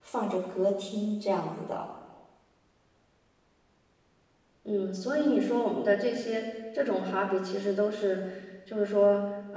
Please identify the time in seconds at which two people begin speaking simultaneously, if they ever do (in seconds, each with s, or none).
none